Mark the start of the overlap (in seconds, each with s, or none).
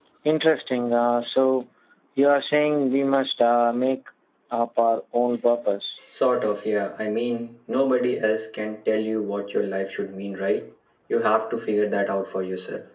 none